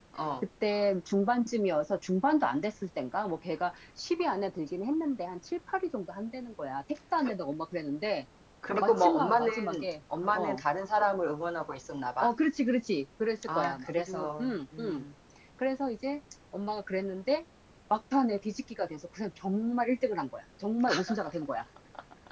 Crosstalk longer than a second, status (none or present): present